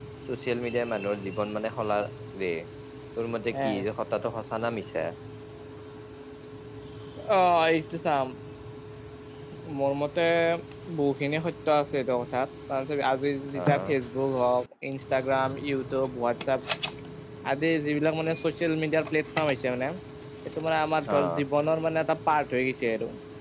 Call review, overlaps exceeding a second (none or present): none